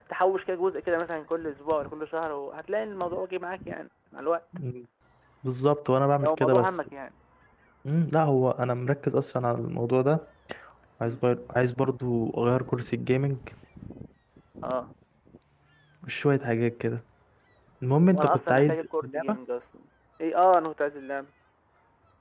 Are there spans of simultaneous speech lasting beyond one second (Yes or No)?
Yes